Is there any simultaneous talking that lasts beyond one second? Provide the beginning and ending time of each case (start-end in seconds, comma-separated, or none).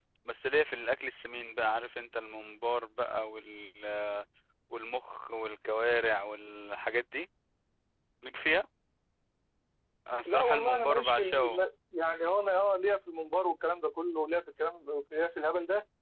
10.3-11.6